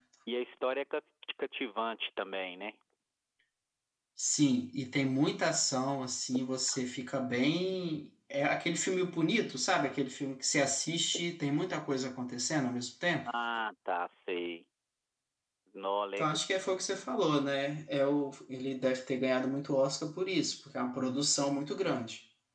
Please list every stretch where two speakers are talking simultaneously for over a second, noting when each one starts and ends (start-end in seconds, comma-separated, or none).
none